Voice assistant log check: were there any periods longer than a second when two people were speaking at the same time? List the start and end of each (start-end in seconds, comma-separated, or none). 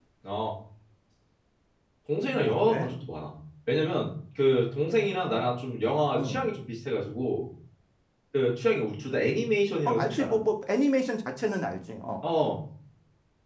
none